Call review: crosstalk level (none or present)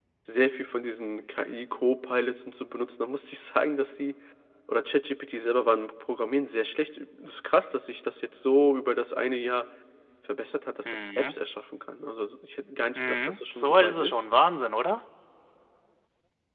present